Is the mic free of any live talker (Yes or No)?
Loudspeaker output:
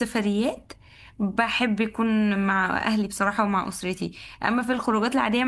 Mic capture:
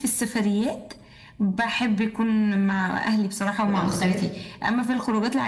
No